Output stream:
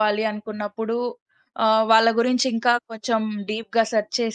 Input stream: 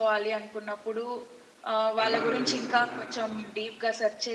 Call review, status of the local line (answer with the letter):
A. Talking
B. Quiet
A